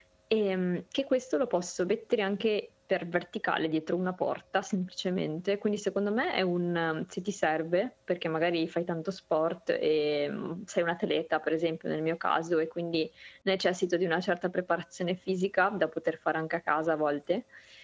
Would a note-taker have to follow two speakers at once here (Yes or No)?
No